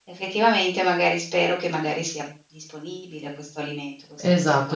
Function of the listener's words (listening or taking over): taking over